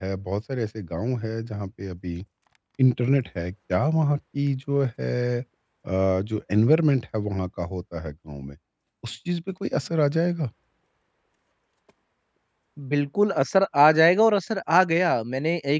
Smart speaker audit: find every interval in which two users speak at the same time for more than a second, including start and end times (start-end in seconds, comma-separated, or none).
none